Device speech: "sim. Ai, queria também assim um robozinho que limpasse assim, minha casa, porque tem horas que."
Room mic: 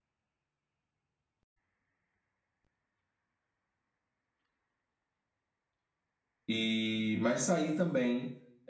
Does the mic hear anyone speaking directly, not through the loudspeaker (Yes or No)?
Yes